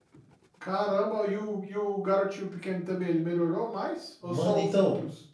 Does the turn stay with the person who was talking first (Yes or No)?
No